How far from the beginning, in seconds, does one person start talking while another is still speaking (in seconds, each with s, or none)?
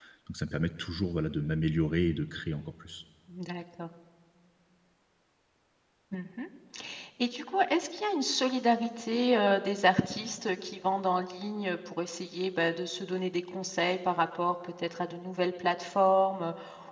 none